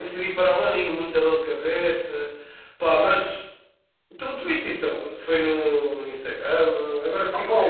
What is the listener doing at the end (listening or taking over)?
taking over